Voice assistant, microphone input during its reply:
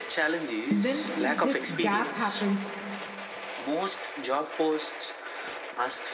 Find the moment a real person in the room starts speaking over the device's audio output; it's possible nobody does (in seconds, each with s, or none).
0.7 s